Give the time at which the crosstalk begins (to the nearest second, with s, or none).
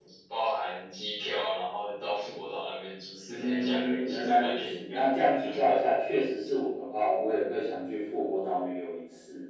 3 s